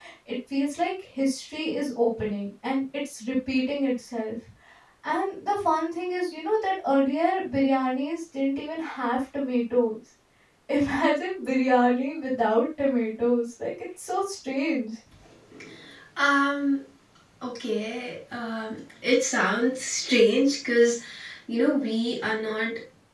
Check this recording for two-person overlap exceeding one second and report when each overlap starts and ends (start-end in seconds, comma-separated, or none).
none